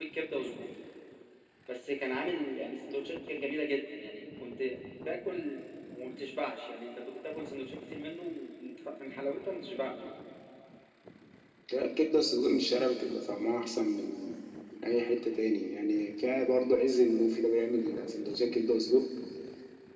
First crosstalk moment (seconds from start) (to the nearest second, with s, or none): none